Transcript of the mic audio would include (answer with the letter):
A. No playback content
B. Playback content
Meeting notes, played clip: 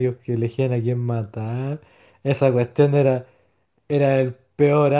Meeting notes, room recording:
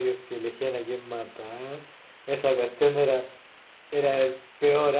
B